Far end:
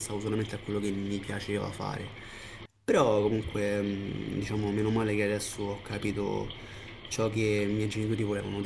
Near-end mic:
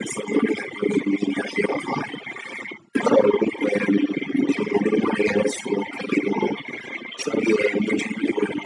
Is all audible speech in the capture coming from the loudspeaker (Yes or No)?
Yes